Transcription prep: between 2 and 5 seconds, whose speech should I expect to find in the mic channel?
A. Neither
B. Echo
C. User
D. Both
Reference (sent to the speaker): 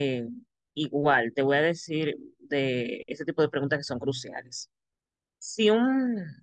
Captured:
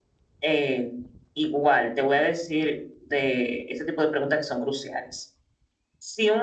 B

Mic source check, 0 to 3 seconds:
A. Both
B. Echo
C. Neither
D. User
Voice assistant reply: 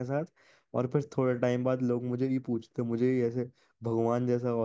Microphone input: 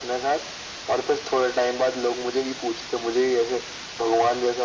B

